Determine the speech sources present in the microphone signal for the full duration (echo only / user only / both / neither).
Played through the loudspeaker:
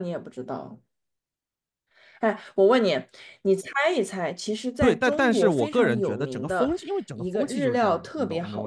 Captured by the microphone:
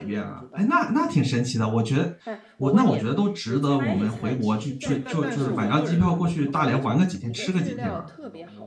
both